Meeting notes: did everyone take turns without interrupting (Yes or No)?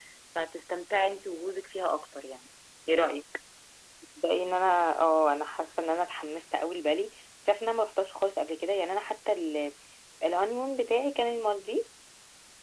Yes